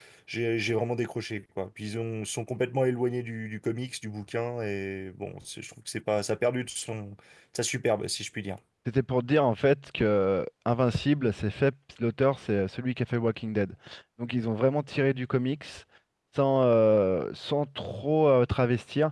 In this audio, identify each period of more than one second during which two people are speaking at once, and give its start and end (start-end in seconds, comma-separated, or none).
none